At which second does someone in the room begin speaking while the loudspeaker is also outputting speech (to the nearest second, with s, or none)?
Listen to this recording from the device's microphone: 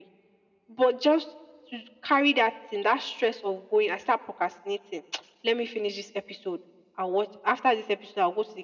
none